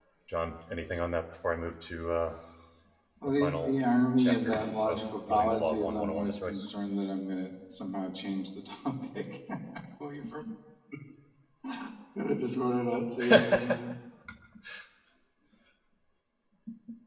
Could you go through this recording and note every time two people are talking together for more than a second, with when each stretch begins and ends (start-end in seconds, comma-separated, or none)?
4.2-6.7